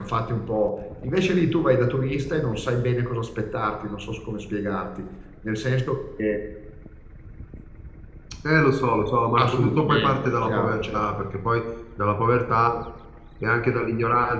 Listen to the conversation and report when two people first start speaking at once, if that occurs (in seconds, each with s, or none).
9.4 s